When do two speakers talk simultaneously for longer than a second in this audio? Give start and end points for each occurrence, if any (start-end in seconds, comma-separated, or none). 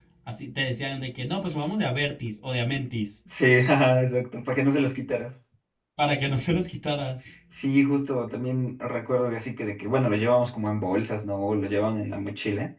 none